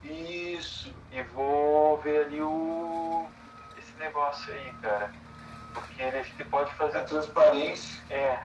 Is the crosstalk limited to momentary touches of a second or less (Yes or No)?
Yes